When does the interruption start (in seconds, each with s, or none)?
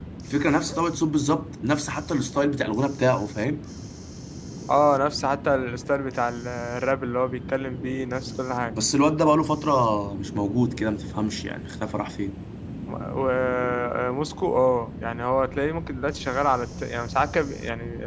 none